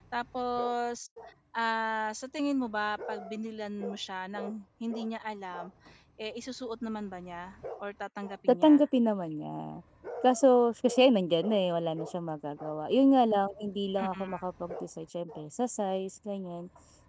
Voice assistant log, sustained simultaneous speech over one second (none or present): none